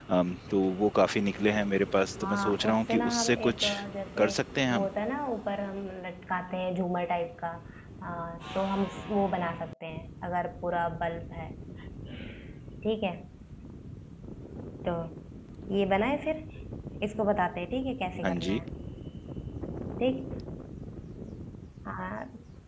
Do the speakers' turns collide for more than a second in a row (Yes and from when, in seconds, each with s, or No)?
Yes, from 2.2 s